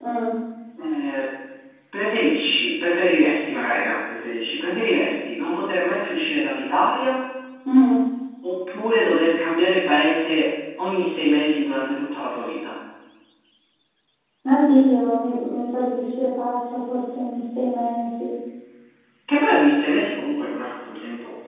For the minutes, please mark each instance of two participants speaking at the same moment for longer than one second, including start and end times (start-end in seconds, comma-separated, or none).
none